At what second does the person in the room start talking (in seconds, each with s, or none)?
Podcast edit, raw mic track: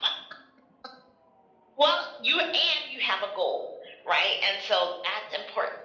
none